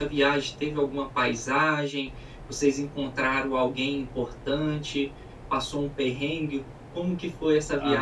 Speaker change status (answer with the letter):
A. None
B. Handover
B